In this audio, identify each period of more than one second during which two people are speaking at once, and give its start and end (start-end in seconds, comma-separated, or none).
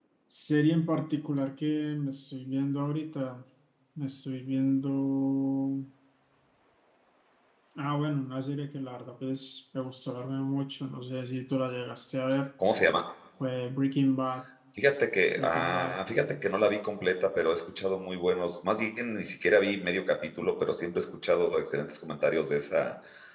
15.3-16.7